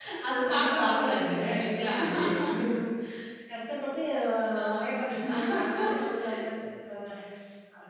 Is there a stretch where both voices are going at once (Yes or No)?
Yes